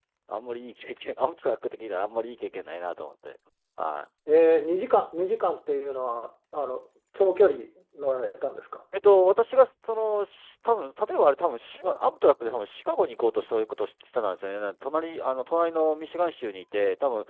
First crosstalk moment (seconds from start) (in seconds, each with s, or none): none